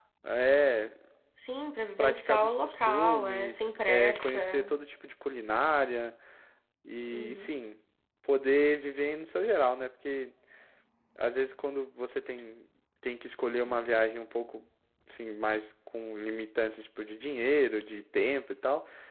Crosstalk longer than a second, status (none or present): present